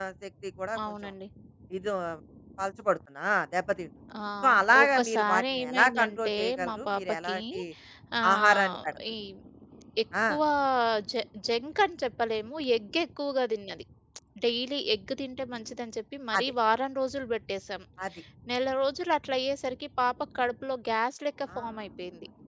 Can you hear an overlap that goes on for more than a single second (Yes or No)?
Yes